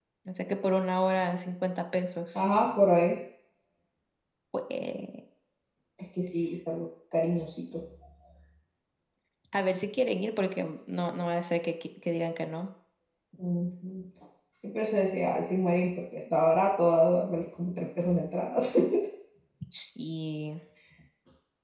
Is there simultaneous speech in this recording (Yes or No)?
No